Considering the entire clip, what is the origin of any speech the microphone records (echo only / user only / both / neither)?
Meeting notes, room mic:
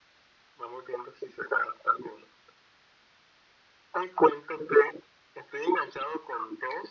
echo only